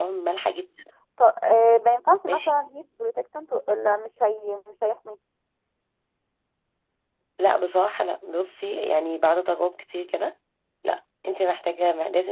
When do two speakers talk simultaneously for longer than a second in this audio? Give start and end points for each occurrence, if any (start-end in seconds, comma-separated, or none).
none